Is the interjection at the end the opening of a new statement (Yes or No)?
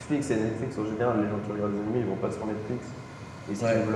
No